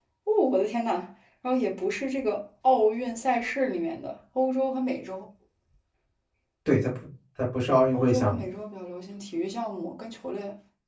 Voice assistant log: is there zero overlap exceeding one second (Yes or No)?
Yes